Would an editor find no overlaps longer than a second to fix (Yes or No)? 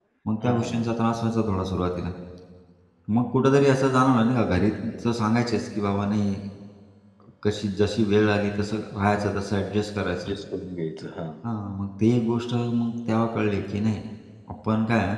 Yes